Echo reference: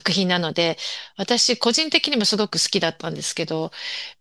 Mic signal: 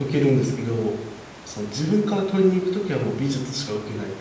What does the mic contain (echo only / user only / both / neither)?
user only